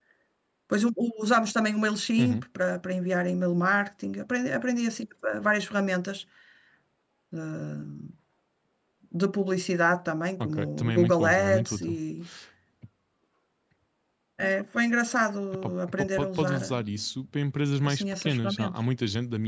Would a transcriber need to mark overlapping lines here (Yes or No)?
Yes